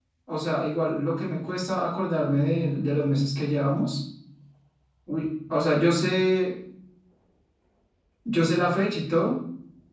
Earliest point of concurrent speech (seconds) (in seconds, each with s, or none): none